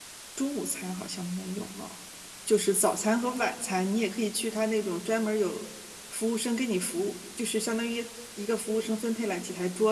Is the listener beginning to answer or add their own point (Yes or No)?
No